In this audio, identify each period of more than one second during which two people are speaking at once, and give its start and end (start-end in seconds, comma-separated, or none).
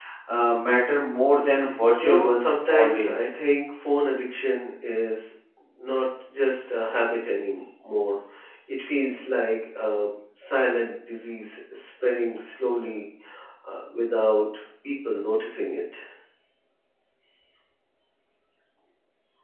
2.0-3.3